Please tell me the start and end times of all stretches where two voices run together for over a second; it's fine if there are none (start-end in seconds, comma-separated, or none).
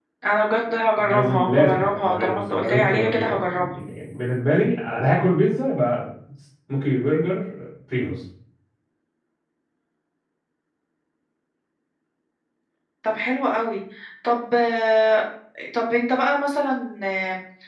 1.0-3.7